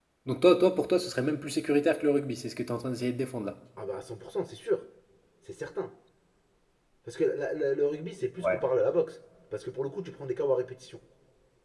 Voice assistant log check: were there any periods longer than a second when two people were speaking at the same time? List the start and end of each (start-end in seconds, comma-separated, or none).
none